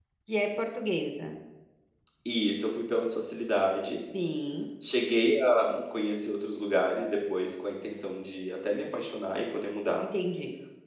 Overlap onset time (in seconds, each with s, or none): none